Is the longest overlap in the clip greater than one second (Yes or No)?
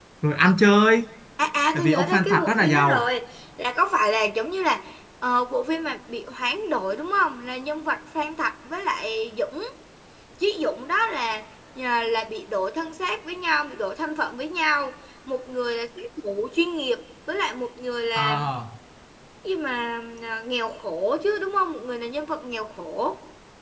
Yes